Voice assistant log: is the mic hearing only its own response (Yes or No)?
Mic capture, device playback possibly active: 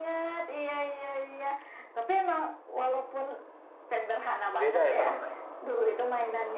No